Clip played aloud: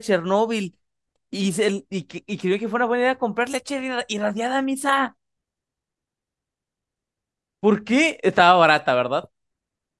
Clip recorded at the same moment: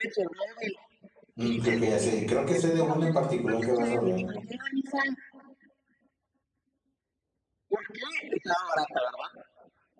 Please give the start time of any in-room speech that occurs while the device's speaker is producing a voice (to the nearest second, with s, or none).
1 s